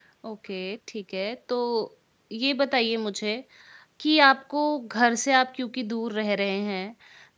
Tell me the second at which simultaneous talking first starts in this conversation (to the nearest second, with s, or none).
none